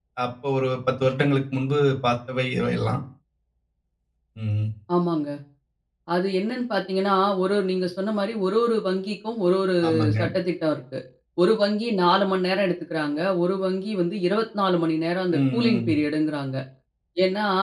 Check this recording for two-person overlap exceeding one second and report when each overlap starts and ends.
none

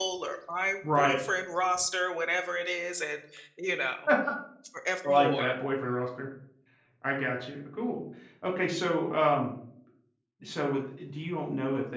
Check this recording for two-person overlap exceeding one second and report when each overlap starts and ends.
none

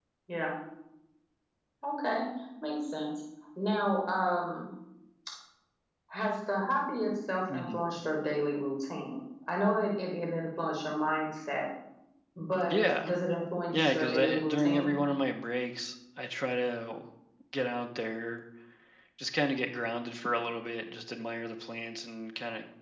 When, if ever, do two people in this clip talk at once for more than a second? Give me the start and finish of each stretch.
13.7-14.9

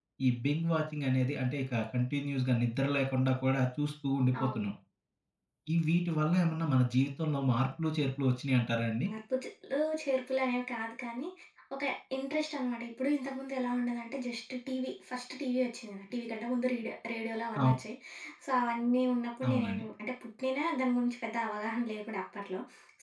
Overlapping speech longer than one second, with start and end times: none

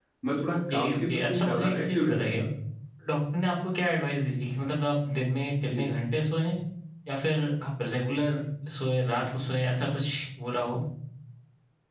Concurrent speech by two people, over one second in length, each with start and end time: 0.5-2.4

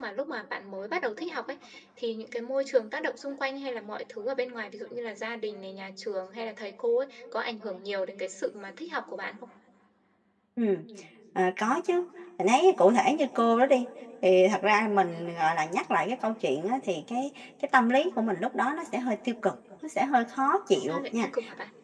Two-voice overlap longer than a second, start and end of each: none

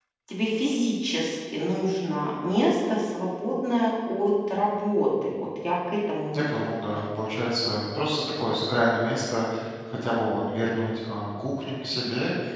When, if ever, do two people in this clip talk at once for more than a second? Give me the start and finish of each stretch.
none

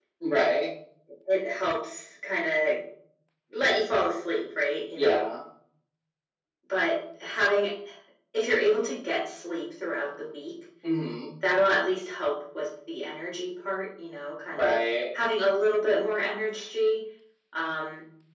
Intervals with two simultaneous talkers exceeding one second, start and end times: none

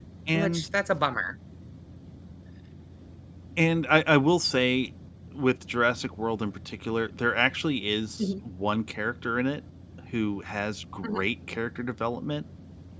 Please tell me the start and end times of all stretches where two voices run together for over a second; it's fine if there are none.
none

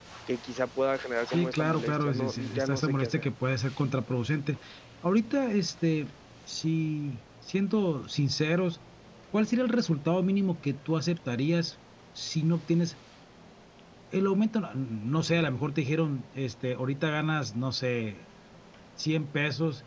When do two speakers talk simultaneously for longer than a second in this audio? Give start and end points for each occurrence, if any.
1.3-3.2

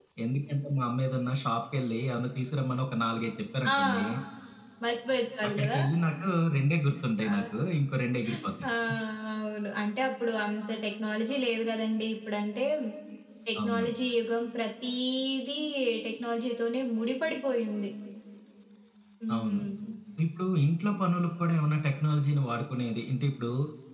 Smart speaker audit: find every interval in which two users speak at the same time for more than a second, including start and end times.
none

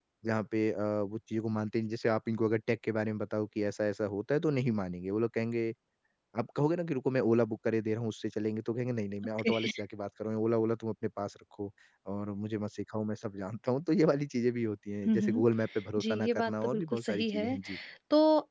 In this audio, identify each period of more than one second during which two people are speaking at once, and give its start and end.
16.0-17.6

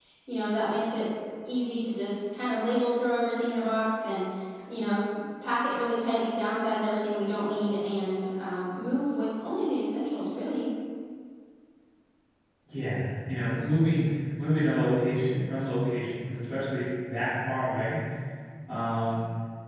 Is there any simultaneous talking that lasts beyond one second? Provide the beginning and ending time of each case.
none

